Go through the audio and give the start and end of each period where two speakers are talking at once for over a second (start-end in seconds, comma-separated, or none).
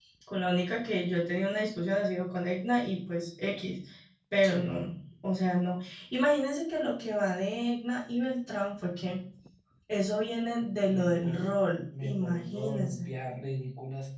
10.9-13.1